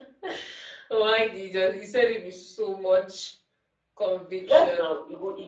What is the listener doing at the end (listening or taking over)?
taking over